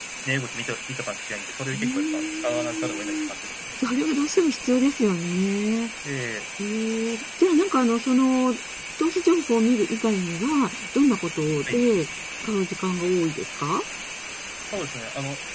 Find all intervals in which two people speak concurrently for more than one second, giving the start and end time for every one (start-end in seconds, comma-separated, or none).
1.7-3.1